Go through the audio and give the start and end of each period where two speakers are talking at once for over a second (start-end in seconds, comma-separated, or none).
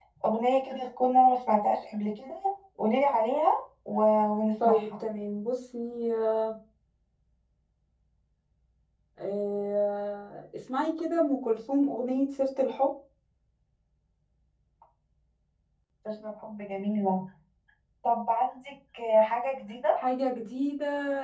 none